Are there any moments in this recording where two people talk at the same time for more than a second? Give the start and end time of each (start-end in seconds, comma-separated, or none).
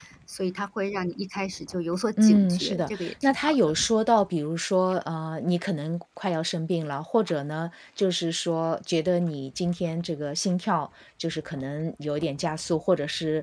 2.2-3.5